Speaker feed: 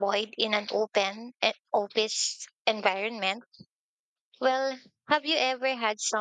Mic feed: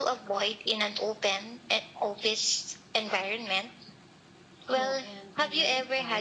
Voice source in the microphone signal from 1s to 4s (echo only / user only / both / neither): echo only